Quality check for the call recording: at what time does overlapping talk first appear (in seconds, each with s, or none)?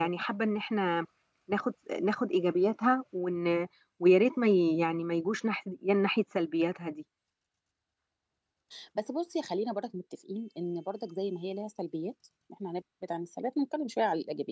none